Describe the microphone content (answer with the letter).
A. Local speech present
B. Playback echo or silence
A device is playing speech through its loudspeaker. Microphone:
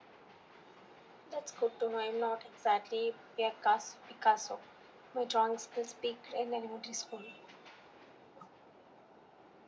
B